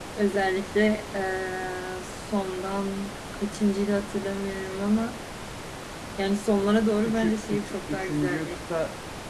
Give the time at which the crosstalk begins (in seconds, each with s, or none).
7.0 s